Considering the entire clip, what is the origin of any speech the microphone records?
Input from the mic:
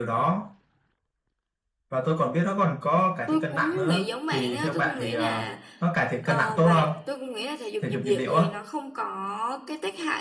both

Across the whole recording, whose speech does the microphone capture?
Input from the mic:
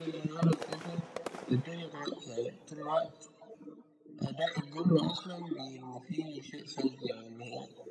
echo only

